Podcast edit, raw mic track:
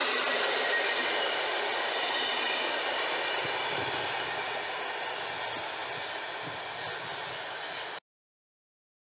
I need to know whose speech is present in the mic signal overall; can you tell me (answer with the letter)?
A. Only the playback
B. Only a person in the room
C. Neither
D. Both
C